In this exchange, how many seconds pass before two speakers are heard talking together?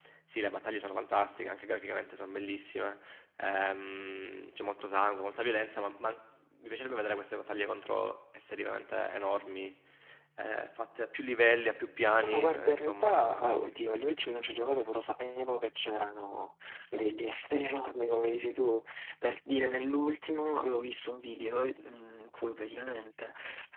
12.2 s

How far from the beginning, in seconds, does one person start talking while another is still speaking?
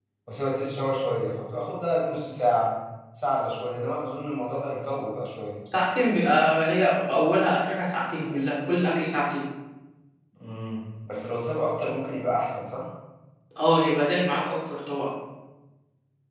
none

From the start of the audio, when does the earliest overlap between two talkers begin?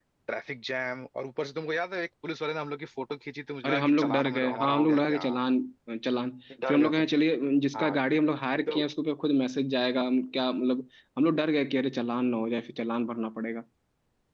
3.6 s

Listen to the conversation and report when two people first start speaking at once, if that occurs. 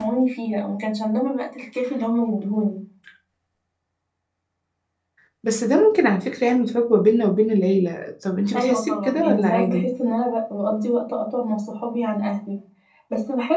8.5 s

